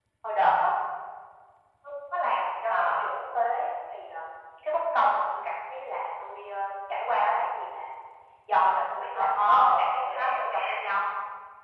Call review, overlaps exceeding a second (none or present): present